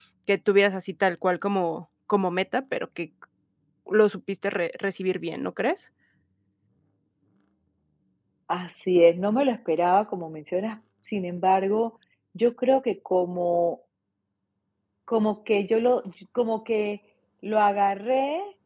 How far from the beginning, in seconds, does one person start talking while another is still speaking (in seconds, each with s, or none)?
none